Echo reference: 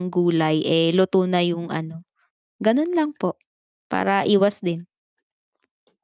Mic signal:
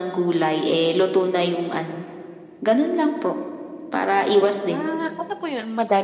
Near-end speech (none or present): present